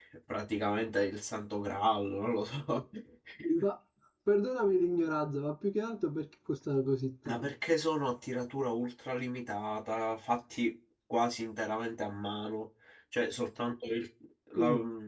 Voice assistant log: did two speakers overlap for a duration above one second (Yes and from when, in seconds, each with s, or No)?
No